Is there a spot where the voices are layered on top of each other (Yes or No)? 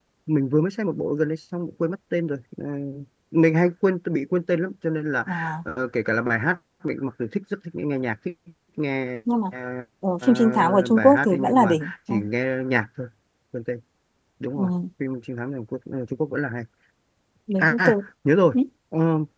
Yes